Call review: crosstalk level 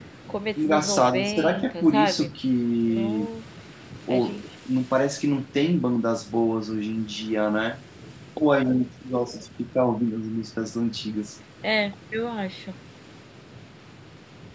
present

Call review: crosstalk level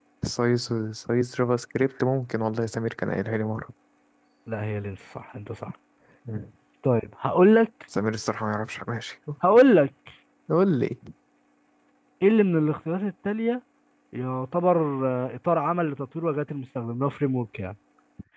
none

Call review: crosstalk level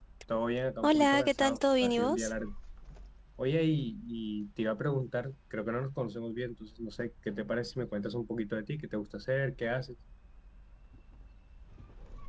present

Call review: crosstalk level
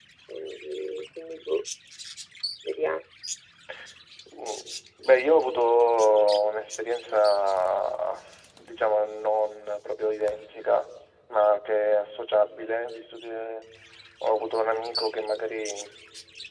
none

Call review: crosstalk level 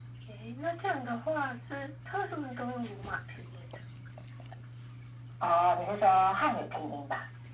none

